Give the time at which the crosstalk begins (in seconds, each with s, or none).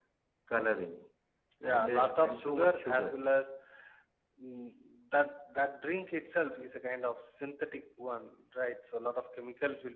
1.7 s